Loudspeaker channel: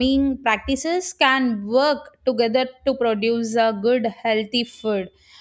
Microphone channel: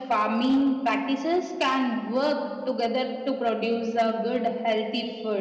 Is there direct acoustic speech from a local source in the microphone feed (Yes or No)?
No